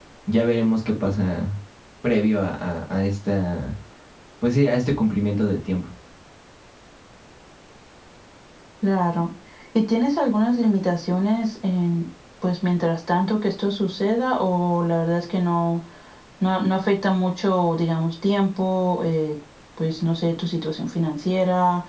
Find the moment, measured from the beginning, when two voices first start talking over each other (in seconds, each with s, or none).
none